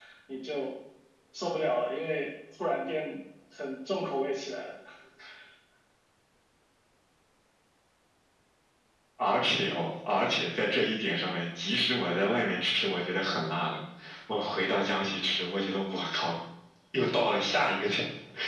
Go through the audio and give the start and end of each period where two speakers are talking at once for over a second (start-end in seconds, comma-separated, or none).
none